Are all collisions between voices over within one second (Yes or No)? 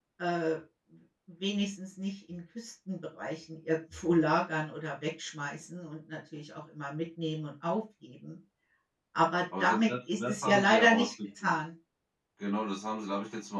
No